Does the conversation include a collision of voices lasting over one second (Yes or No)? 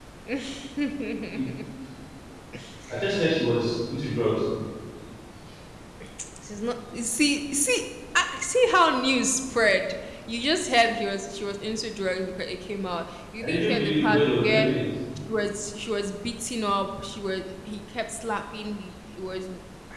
Yes